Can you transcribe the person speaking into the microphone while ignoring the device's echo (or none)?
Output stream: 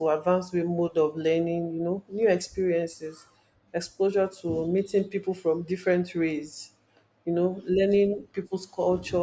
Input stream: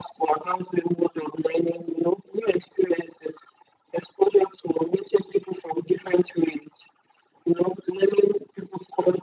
none